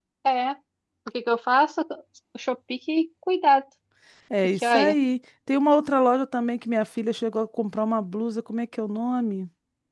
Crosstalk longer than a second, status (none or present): none